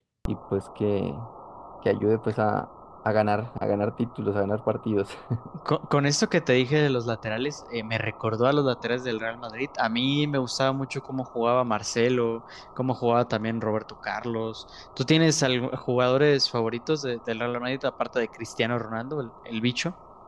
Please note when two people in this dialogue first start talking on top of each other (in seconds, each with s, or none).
none